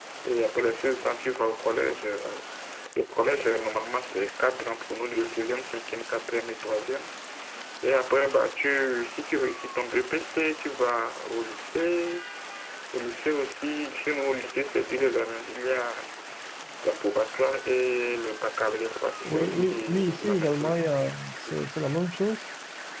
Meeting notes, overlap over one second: present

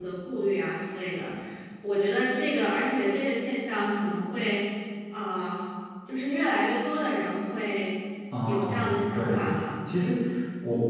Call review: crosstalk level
present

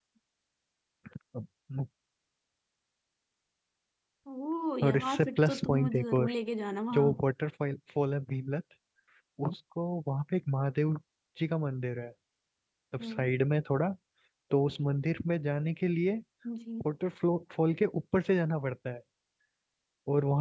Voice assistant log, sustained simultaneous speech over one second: present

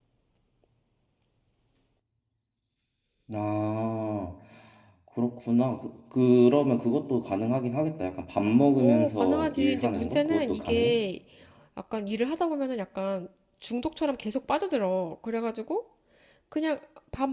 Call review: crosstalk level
present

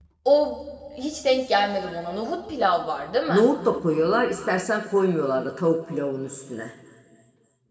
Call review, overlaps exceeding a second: none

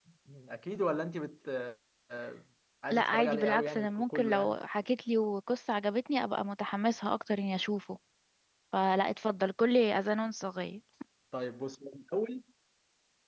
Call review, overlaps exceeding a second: present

